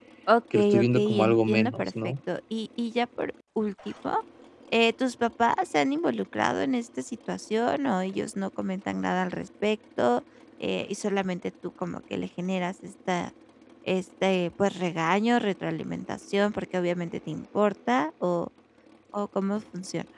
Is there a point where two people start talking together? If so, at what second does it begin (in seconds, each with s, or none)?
0.5 s